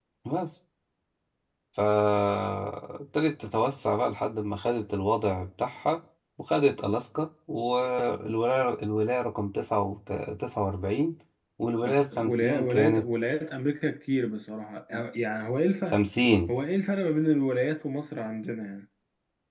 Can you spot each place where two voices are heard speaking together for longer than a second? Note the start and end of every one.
11.8-13.1

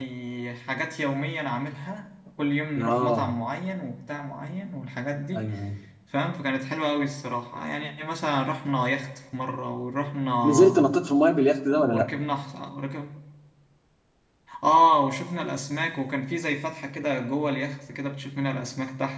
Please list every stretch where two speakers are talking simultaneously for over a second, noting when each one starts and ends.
none

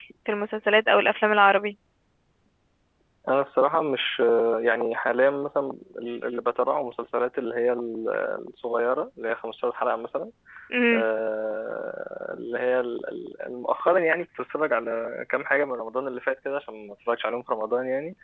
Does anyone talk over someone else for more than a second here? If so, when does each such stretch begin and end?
none

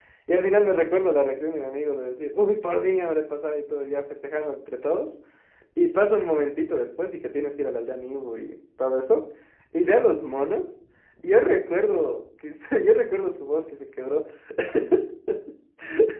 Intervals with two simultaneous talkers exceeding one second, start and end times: none

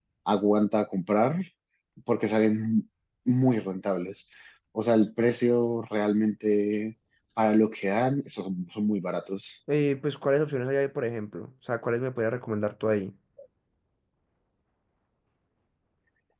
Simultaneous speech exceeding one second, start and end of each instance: none

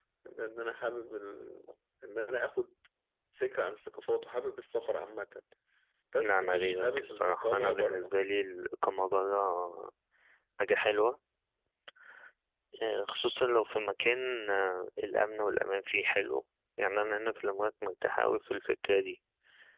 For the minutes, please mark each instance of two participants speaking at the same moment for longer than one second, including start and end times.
6.2-8.1

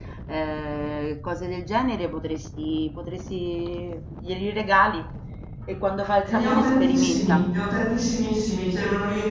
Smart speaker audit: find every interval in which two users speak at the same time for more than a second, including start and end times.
6.2-7.5

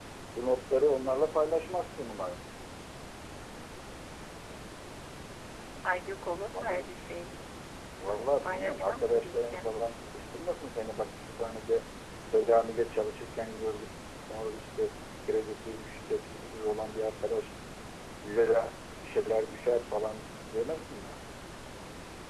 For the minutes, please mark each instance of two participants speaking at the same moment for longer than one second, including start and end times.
8.4-9.7

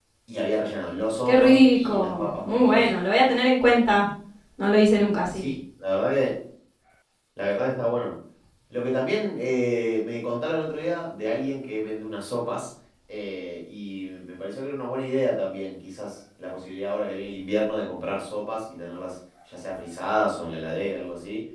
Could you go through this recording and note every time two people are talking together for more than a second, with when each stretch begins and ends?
1.2-3.0

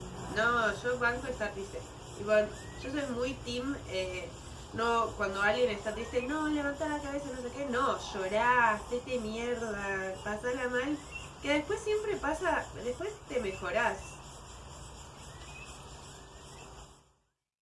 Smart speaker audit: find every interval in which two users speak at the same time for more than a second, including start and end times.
none

